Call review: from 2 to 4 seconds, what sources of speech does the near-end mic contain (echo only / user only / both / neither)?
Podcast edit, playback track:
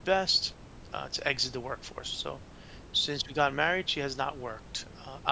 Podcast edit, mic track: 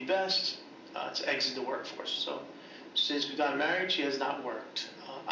echo only